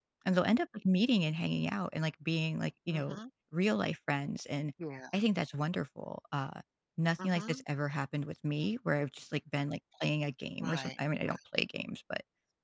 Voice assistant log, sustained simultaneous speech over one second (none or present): none